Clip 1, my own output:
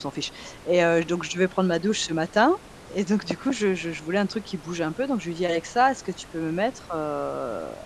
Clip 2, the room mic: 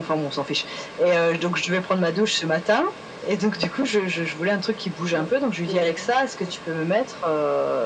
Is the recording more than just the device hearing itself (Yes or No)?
Yes